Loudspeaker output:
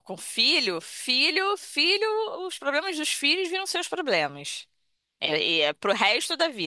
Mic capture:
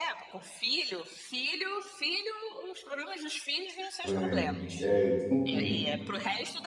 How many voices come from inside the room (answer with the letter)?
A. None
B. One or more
B